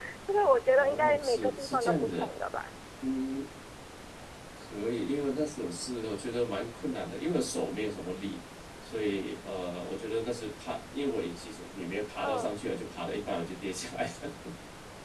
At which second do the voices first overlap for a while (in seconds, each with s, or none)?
0.8 s